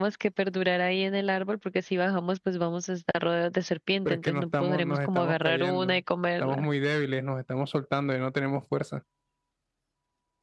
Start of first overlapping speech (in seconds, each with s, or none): 4.0 s